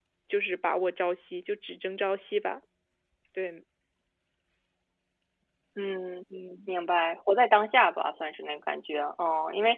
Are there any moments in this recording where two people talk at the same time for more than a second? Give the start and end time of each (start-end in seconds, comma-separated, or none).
none